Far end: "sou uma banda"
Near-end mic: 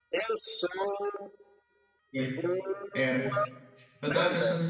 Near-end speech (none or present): present